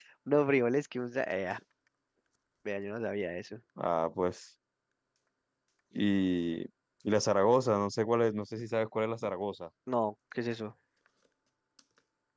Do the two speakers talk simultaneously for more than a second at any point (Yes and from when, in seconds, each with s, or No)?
No